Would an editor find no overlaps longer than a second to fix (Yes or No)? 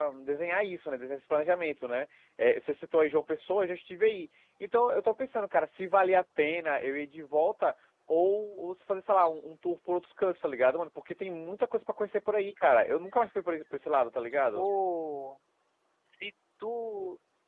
Yes